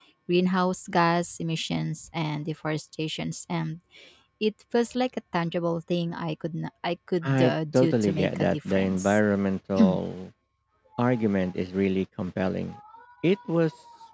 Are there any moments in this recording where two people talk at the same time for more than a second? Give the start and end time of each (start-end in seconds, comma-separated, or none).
7.2-9.2